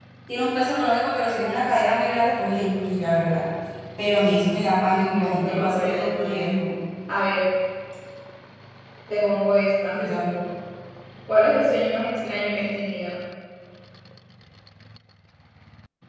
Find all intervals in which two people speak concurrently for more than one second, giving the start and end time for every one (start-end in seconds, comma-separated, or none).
4.9-6.5